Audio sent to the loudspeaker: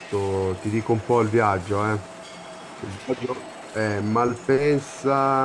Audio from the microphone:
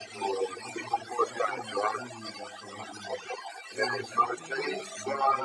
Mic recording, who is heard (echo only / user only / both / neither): both